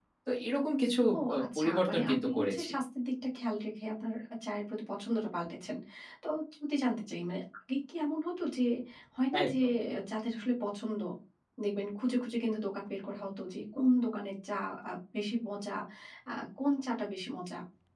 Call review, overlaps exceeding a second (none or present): present